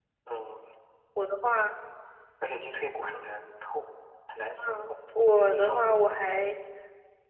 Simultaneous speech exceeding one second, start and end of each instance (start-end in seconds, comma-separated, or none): 4.6-5.8